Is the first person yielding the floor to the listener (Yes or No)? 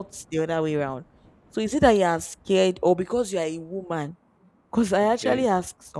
No